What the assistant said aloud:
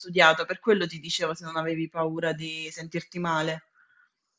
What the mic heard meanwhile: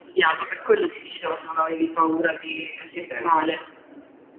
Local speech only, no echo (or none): Esatto.